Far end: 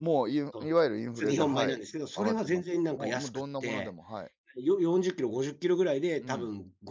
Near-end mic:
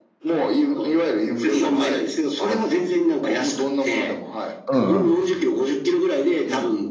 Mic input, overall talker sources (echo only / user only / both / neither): both